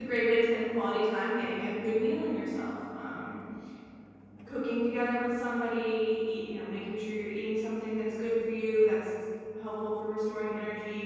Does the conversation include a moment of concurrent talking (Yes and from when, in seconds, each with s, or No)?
No